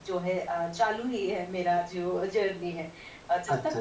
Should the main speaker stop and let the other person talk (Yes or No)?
Yes